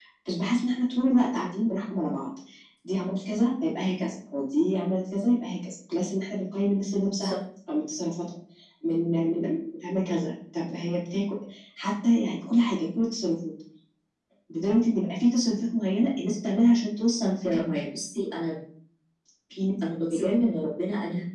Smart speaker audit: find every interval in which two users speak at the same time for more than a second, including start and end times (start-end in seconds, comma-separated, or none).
none